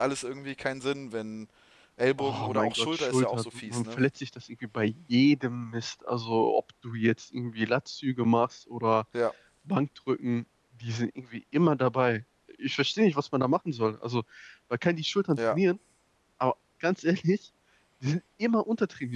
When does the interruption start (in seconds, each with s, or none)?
2.2 s